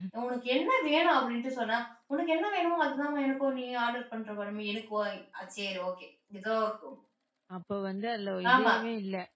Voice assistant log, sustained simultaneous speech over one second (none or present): none